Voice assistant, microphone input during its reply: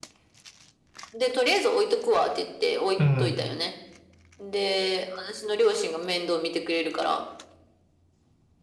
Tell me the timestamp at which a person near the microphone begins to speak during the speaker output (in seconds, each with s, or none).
3.0 s